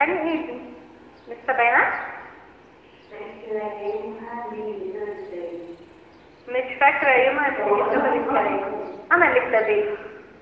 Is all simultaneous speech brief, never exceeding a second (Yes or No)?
No